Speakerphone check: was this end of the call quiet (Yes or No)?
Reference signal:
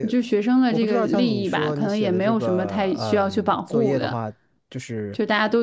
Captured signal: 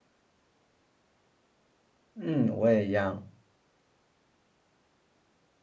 No